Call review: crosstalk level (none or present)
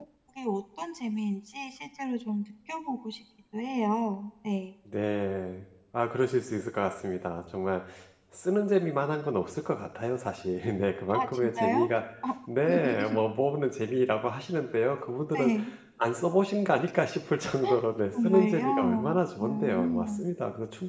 present